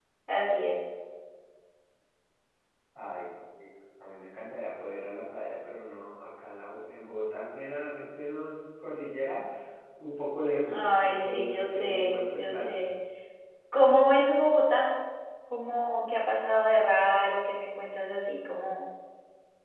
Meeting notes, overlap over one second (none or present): present